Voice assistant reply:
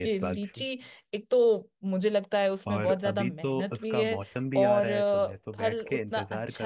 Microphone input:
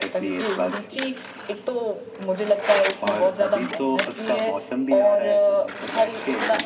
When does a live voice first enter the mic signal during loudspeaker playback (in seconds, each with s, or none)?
none